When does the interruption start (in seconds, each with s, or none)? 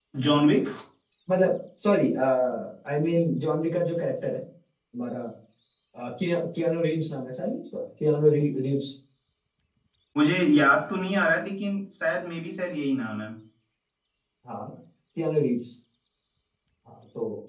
none